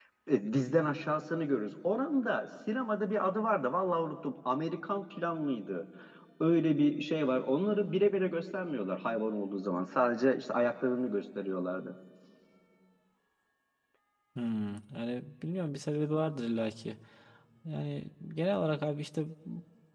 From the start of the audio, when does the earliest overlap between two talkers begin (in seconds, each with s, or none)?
none